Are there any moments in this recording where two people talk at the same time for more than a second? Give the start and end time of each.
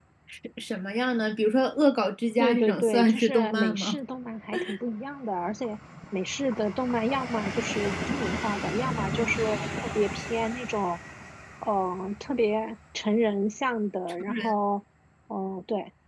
2.4-4.0

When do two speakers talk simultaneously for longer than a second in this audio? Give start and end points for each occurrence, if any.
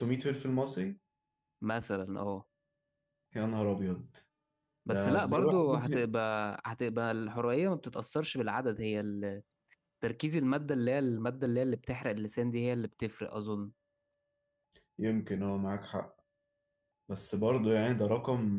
4.9-6.1

